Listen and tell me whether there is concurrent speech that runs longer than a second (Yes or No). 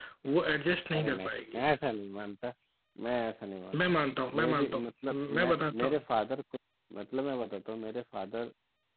Yes